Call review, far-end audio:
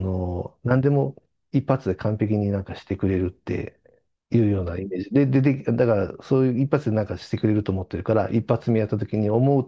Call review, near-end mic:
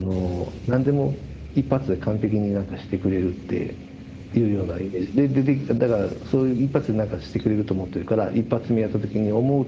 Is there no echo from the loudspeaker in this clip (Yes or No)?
No